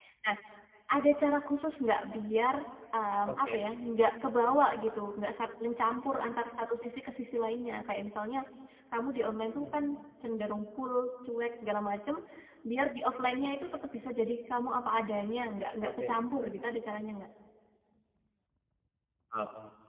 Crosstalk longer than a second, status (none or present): none